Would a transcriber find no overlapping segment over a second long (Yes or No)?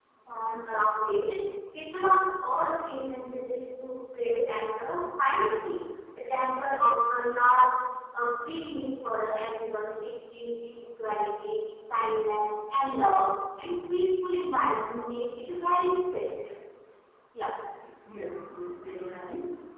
Yes